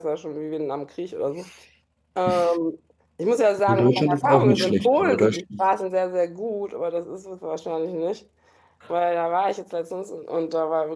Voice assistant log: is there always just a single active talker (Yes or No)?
No